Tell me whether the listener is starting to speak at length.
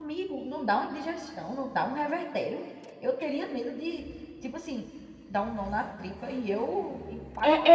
Yes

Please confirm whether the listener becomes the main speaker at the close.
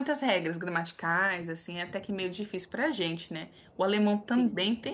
No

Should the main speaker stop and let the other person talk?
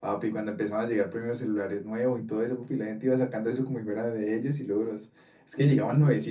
No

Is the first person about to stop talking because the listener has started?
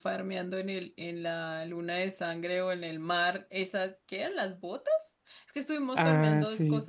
No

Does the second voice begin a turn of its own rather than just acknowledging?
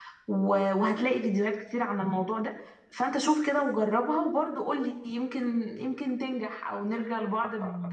Yes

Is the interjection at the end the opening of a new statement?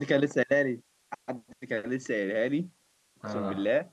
No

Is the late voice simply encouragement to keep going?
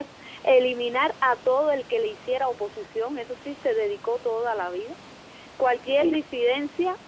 Yes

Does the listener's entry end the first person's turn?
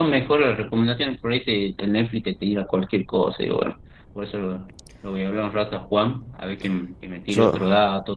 No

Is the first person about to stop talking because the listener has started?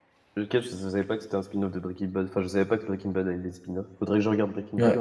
Yes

